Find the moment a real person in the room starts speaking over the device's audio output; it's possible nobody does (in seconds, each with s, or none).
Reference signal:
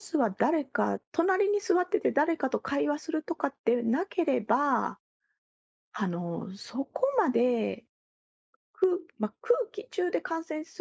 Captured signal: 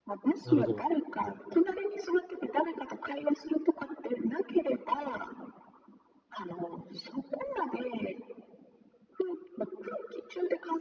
0.4 s